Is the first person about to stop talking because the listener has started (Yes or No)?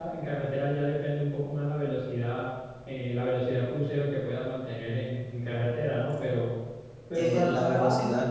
Yes